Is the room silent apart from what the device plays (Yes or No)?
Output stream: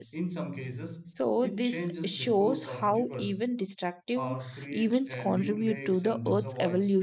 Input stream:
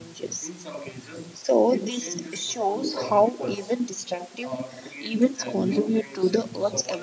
Yes